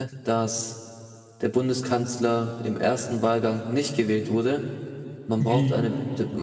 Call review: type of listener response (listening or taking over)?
listening